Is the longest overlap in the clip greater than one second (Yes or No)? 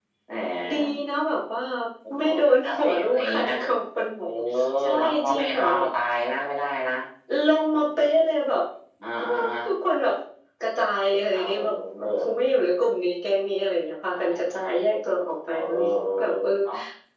Yes